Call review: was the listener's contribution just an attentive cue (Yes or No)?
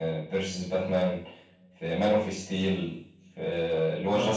Yes